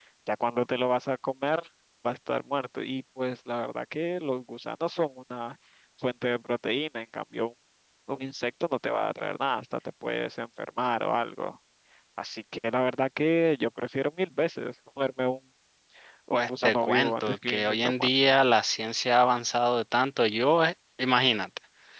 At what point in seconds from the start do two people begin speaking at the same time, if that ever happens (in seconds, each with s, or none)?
16.3 s